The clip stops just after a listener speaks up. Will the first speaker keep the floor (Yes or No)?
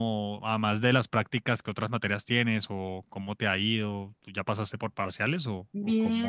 No